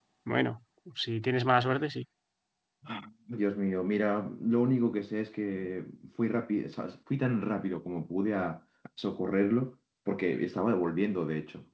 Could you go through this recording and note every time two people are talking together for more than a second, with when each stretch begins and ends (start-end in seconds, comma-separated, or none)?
none